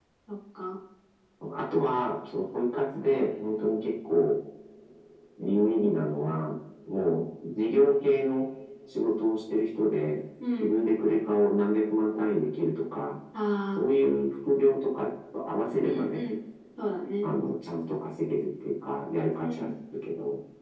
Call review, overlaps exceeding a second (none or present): none